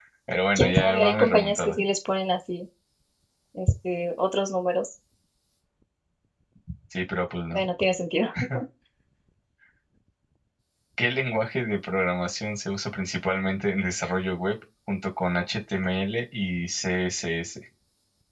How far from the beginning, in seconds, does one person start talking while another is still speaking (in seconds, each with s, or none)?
0.6 s